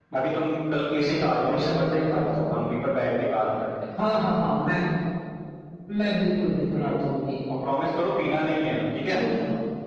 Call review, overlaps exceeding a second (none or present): present